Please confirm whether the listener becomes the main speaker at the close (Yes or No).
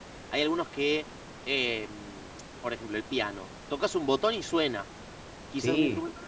No